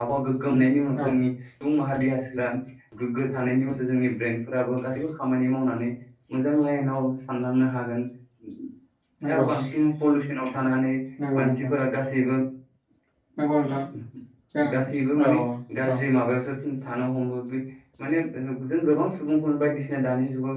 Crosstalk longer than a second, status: none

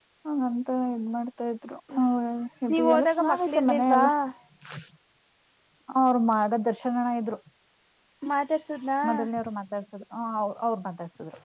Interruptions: present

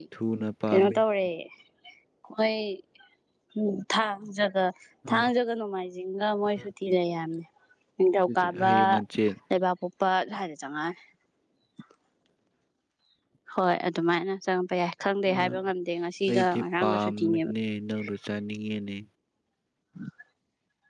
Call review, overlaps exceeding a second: present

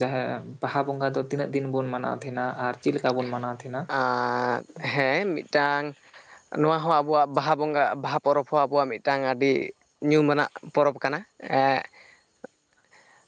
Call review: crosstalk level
none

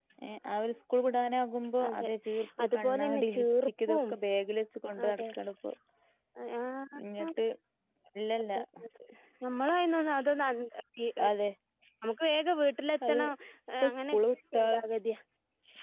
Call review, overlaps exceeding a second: present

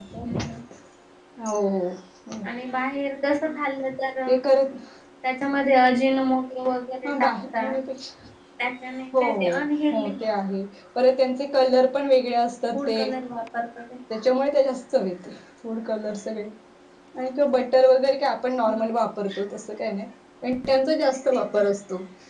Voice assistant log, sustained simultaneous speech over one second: none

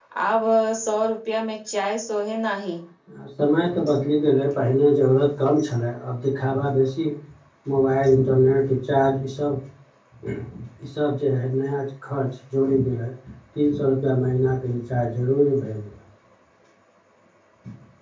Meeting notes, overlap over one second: none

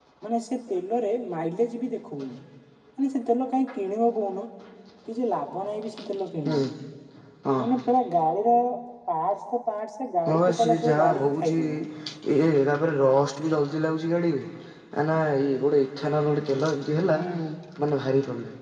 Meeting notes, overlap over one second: present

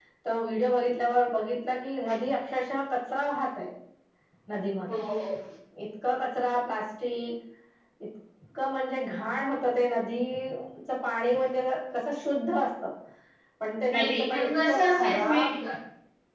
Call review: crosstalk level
present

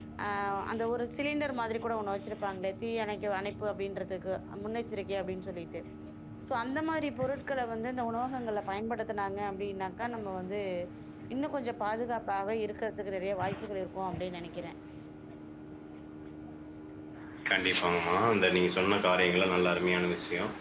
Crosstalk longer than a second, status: none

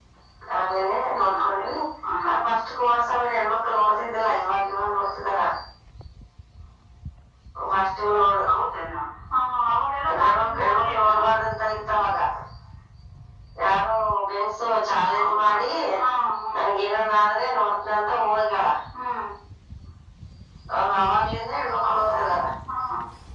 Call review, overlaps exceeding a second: present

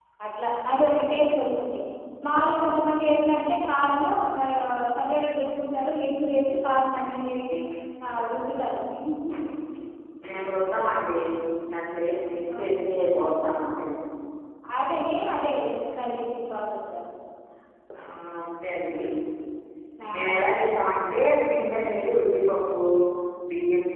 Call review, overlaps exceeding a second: none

